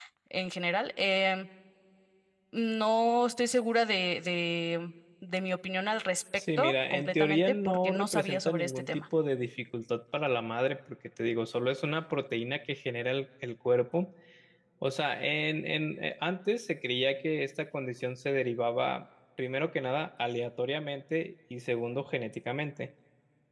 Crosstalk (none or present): present